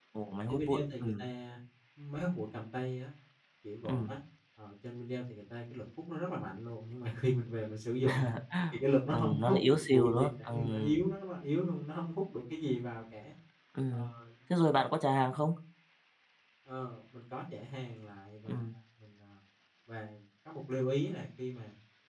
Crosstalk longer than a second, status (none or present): present